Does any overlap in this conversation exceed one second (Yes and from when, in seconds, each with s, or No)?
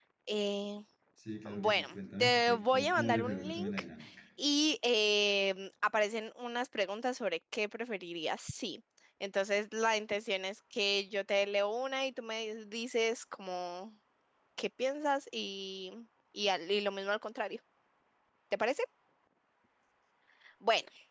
Yes, from 1.6 s